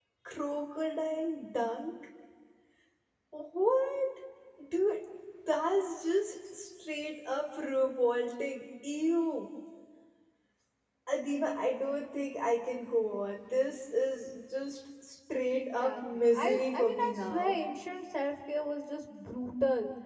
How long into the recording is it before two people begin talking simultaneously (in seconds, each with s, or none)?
15.6 s